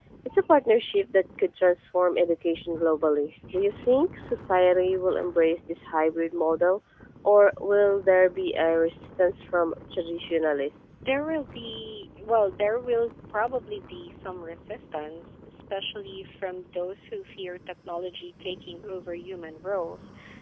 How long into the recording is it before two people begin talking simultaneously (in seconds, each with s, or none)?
none